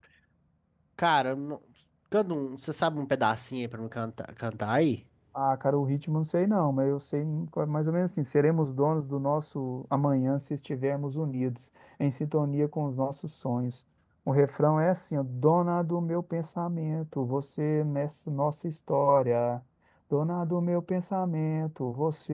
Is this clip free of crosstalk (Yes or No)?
Yes